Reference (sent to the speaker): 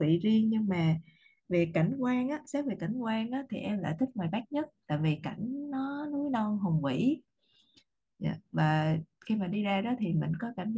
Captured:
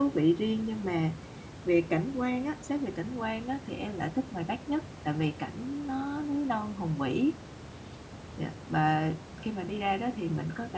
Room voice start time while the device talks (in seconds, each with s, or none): none